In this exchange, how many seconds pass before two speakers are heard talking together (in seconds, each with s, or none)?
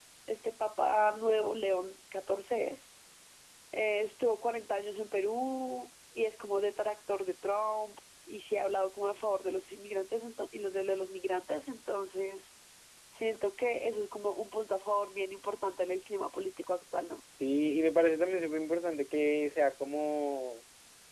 none